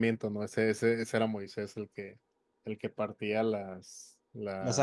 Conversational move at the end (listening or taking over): listening